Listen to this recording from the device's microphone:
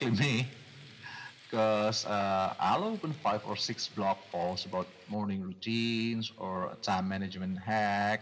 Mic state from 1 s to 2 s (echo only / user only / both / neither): echo only